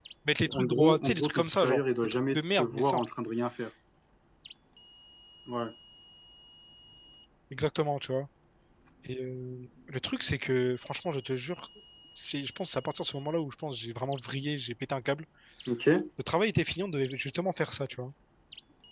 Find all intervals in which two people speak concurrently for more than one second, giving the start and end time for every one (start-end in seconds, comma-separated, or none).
0.5-3.1